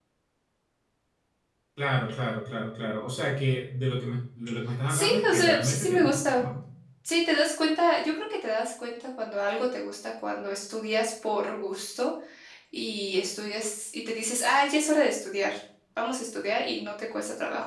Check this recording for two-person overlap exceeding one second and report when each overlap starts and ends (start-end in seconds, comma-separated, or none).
4.9-6.4